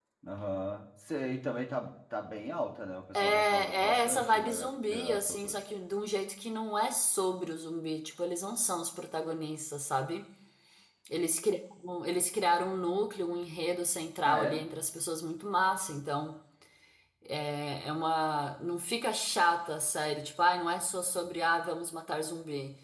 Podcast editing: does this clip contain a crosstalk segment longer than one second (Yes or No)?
Yes